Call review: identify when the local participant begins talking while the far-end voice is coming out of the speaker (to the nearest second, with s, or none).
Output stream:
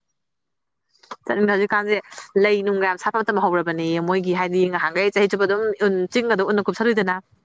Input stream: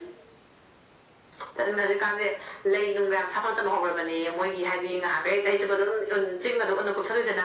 none